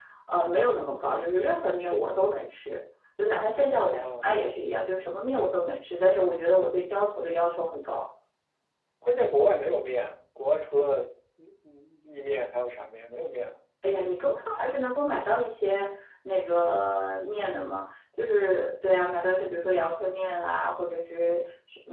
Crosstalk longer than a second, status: none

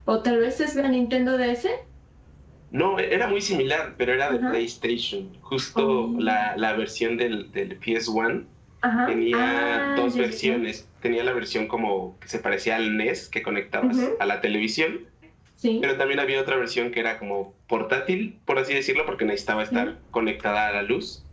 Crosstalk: present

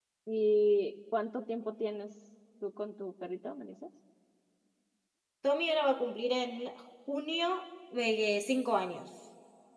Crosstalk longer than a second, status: none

